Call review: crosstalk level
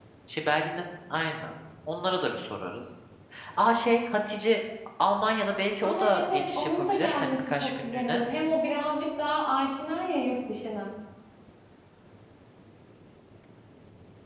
present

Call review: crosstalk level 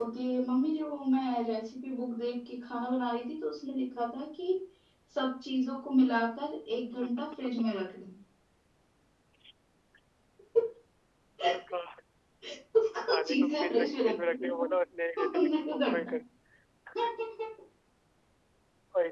present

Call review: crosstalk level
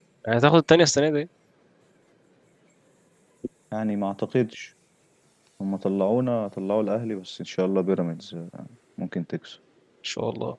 none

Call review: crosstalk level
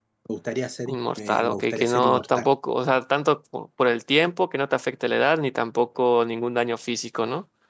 present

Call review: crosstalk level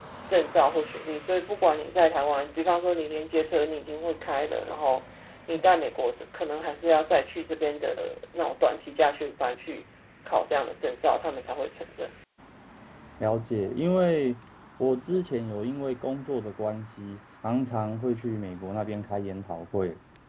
none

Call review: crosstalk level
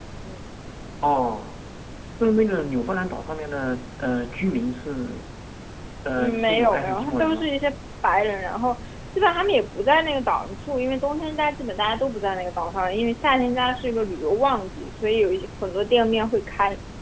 present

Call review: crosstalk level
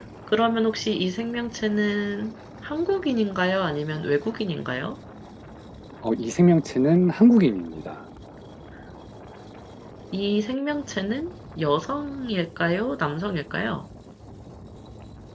none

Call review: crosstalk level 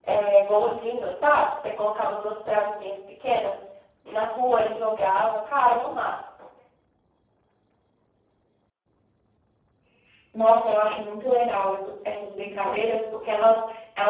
none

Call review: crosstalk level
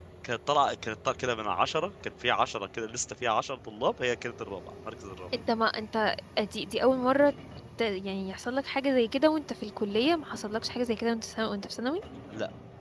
none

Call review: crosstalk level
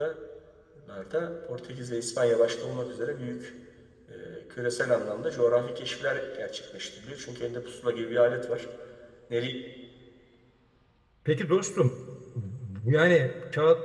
none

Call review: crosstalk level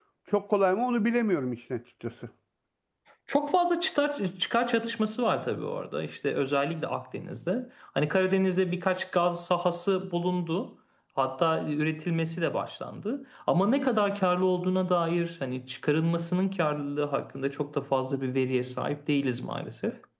none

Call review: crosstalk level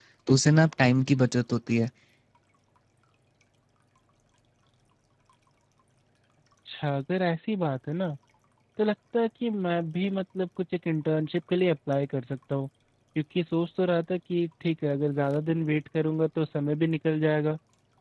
none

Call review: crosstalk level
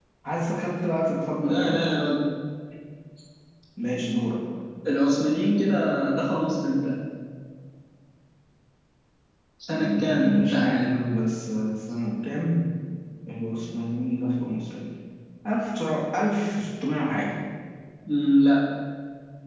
present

